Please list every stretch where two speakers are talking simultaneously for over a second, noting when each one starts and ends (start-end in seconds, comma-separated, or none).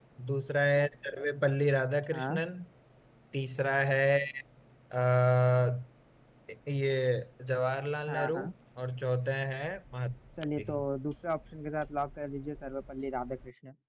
none